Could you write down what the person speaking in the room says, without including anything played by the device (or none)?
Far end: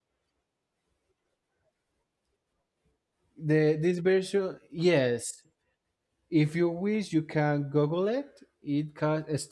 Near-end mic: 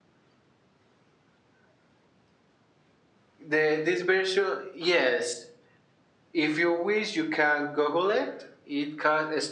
none